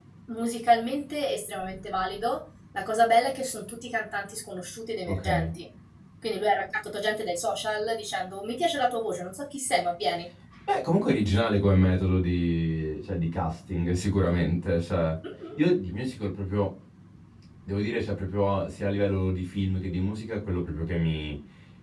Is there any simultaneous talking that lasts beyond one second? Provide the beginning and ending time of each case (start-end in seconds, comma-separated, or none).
none